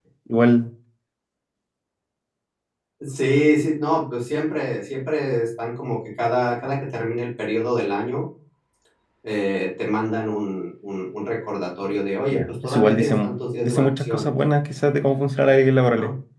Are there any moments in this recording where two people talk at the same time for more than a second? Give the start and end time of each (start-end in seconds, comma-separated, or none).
12.3-14.3